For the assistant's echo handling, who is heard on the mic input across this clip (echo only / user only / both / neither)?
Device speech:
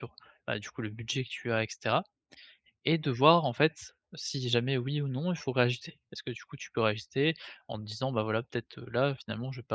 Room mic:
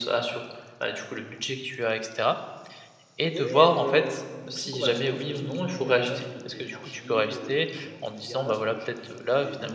both